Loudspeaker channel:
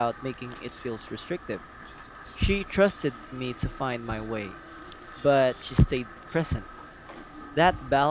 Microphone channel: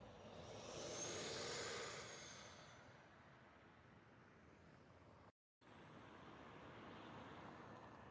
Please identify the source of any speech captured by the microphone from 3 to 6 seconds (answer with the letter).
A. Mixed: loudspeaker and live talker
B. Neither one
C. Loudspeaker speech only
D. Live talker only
B